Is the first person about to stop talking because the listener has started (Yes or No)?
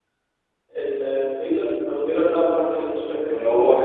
Yes